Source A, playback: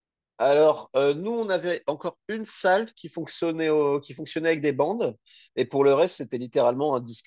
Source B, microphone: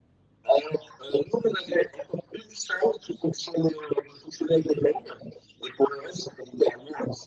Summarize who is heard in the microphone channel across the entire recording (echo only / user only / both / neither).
echo only